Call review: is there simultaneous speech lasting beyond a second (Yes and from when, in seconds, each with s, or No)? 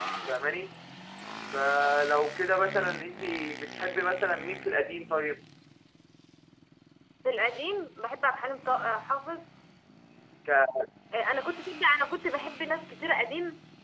No